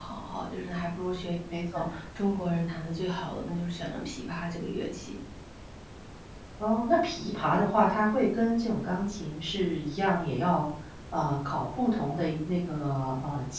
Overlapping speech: No

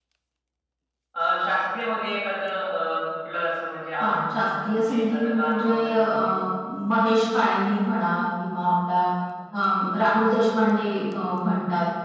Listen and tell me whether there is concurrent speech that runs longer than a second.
Yes, from 4.0 s

